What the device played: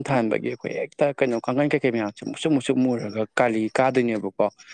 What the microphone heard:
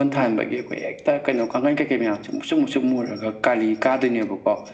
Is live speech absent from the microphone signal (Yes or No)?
Yes